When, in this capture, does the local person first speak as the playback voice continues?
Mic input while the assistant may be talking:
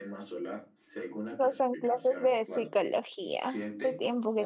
1.3 s

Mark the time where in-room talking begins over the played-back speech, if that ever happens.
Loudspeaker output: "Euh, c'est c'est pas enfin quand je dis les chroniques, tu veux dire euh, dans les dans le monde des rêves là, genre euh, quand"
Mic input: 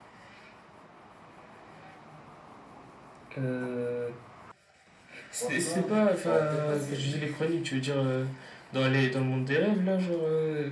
5.3 s

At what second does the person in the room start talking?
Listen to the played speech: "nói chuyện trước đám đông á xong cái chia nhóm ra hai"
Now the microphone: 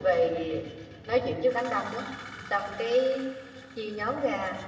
none

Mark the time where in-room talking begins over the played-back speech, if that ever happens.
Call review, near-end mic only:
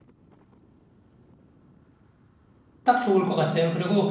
2.8 s

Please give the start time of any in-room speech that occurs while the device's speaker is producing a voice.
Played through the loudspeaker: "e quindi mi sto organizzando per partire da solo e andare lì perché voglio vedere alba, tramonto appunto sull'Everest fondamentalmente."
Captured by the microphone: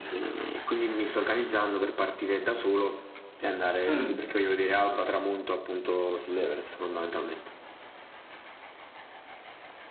3.9 s

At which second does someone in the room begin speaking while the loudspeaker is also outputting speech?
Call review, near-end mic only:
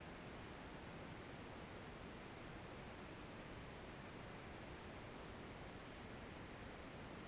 none

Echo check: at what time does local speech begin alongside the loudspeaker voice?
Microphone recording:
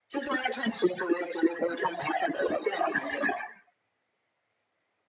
none

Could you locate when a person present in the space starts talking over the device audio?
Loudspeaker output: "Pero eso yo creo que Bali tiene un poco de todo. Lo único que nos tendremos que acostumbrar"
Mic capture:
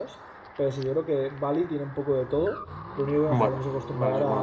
3.3 s

